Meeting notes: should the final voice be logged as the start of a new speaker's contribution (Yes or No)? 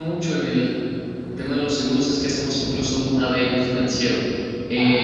No